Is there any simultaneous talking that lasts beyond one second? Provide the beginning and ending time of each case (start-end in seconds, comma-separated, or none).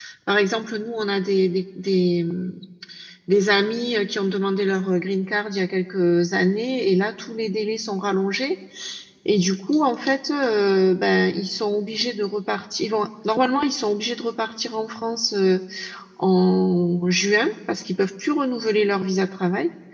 none